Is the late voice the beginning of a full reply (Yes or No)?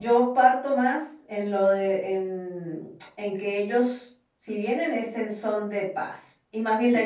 Yes